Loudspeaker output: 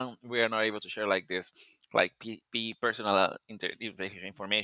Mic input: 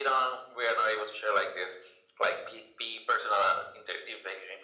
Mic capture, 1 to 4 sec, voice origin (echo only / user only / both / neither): echo only